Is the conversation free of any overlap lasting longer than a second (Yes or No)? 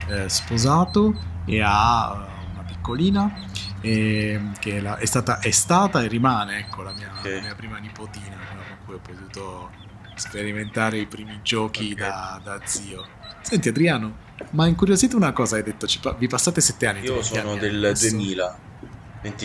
No